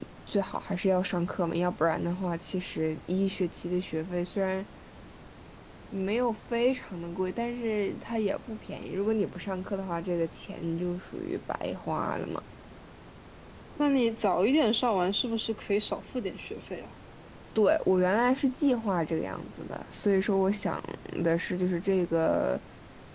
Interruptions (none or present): none